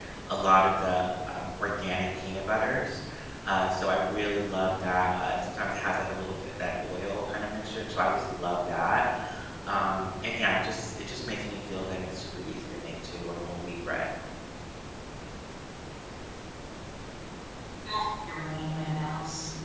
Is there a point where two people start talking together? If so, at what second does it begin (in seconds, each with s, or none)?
none